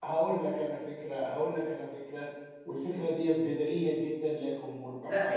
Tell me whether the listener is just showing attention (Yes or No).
No